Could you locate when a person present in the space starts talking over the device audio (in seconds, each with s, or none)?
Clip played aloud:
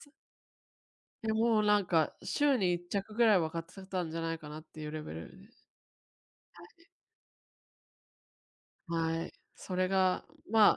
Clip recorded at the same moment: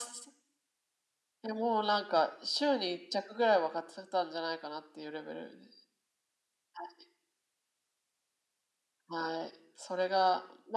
none